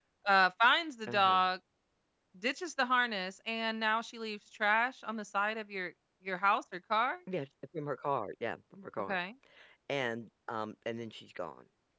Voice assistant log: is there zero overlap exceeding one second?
Yes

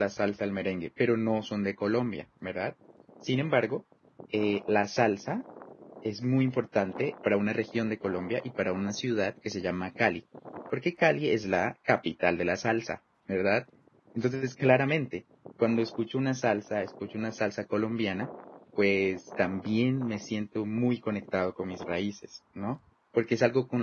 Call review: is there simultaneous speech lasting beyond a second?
No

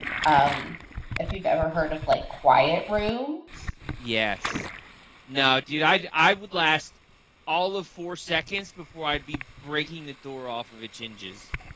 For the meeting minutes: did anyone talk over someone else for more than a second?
No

